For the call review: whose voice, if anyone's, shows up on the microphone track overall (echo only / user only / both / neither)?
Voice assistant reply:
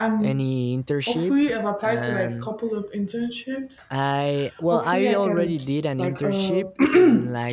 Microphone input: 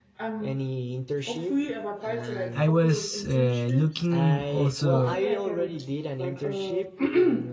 both